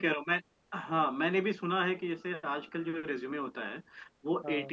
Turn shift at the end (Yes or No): No